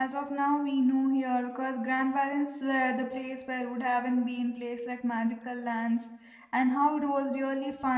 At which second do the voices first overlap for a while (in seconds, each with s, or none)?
none